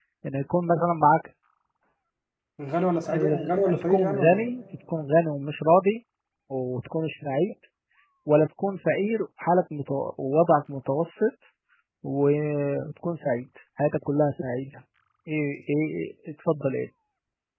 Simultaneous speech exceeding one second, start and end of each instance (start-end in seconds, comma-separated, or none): 3.1-4.5